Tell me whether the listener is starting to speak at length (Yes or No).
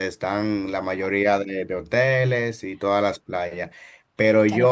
Yes